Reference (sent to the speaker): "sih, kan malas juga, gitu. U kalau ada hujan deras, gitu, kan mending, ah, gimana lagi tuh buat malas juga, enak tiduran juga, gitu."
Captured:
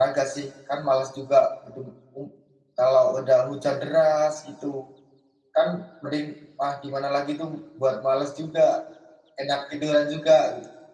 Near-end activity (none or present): none